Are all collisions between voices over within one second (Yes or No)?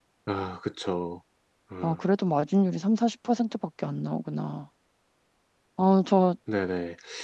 Yes